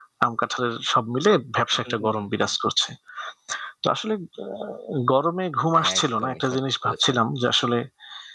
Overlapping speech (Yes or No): Yes